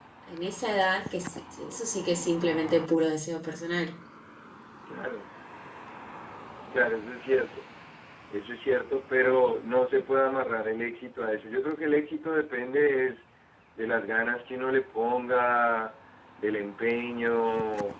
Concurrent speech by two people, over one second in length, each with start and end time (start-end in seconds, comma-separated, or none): none